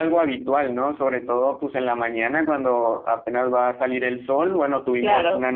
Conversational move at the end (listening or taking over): listening